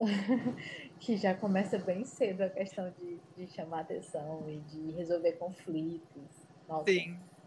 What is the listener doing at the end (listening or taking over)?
taking over